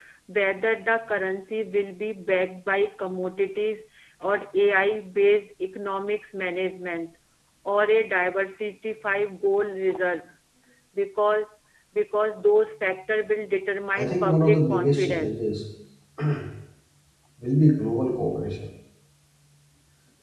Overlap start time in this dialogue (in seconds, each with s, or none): 14.0 s